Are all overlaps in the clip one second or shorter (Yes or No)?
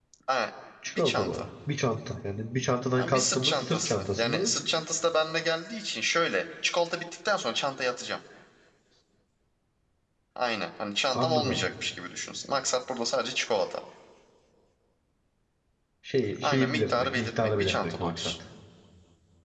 No